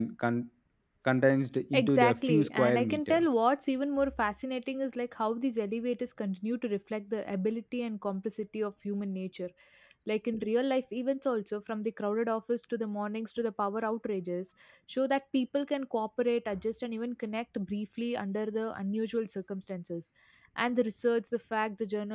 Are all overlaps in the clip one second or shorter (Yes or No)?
No